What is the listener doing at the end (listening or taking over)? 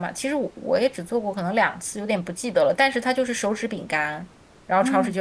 listening